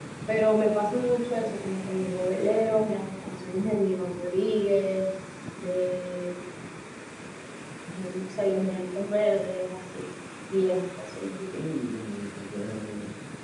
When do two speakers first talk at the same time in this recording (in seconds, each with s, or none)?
none